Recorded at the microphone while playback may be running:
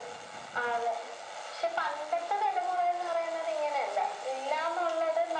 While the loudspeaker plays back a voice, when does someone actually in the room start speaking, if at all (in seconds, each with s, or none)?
none